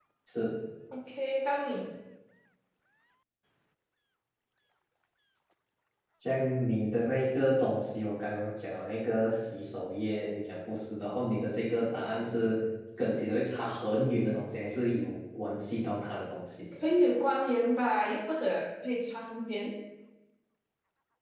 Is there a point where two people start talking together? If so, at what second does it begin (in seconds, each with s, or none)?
none